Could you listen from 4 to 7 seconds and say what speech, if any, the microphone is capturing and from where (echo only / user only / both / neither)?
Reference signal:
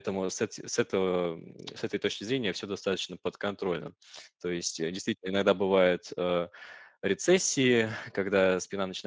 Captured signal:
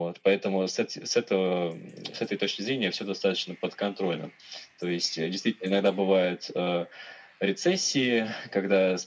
echo only